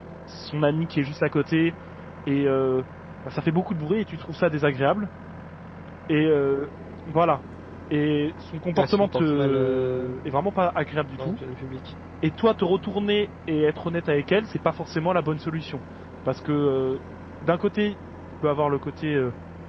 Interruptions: present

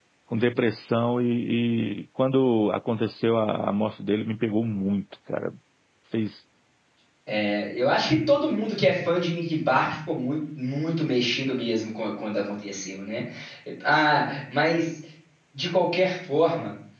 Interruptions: none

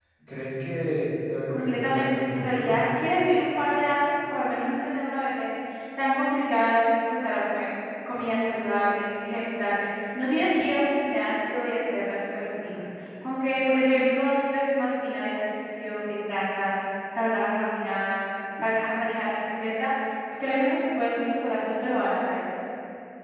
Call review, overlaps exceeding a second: present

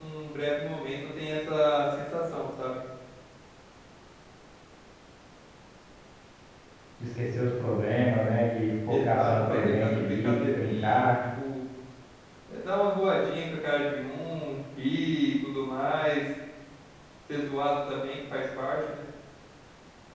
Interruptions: present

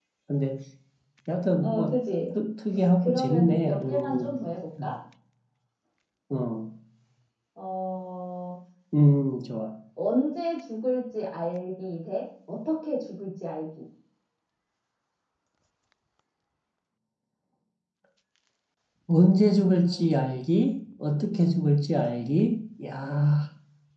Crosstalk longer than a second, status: present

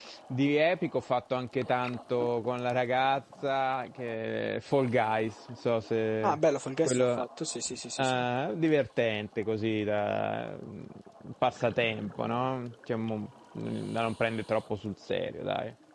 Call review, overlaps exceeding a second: none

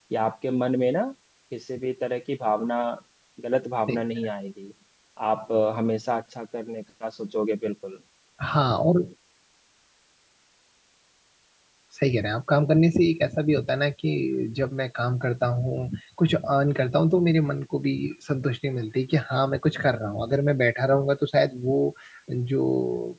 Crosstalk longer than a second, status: none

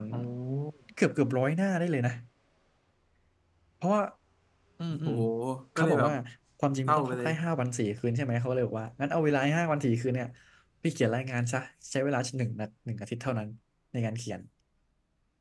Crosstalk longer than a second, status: none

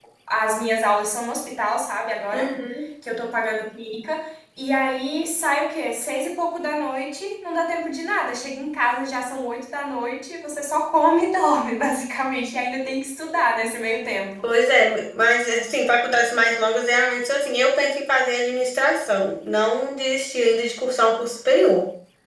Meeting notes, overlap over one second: none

